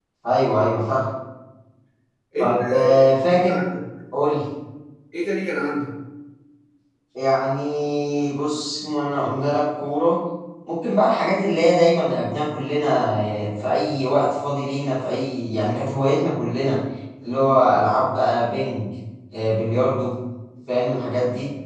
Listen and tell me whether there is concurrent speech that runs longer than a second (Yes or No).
Yes